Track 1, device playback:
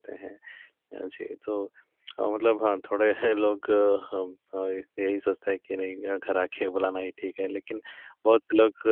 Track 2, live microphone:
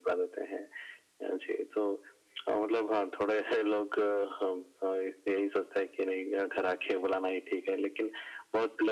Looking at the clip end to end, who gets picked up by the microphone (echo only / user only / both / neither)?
echo only